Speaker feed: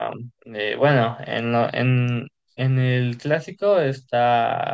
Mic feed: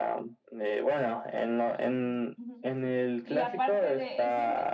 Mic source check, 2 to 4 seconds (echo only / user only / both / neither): both